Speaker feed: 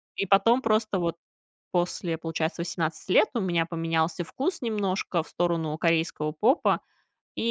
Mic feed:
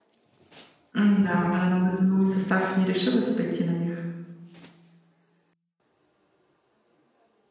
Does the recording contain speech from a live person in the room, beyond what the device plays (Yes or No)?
Yes